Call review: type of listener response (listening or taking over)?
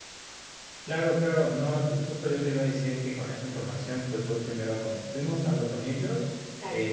listening